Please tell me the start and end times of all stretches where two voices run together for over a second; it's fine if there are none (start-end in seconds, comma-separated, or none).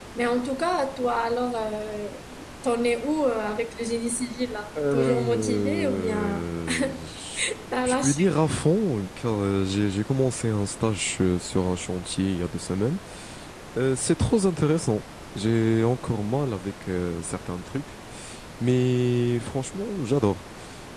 4.9-6.4